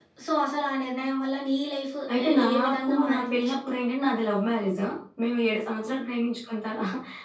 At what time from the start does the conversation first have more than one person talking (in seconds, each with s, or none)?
2.1 s